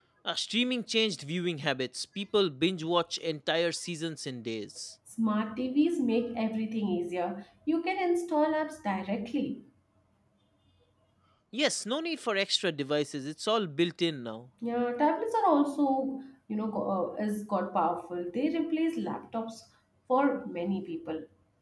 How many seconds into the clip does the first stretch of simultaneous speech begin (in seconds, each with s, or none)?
none